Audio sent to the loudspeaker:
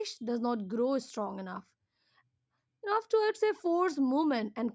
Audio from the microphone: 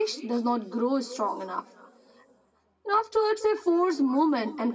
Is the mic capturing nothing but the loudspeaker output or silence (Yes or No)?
Yes